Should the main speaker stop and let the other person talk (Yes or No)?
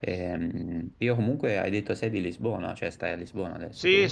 Yes